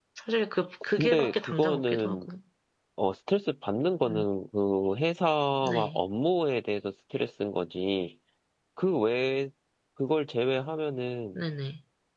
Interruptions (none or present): present